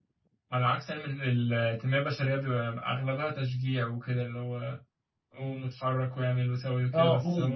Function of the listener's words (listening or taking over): taking over